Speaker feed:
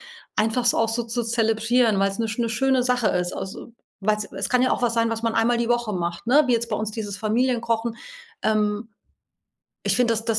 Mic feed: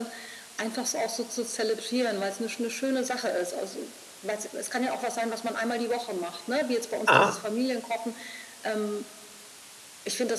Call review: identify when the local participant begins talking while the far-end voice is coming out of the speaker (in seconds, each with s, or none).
7.1 s